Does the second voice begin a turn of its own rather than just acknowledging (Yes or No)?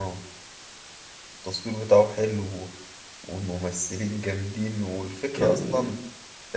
No